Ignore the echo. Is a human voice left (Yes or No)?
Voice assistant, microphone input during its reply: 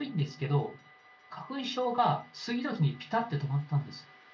Yes